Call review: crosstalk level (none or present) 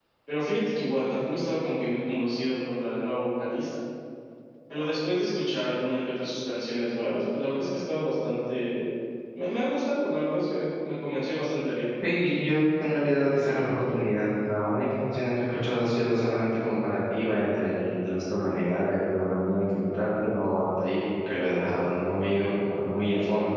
none